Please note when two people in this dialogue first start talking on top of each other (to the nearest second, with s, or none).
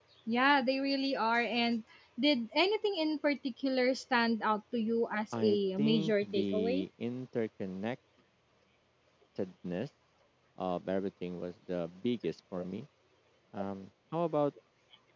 5 s